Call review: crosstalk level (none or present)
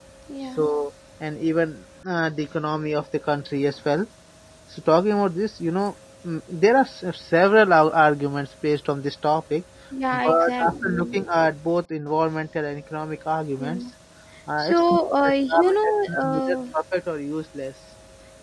present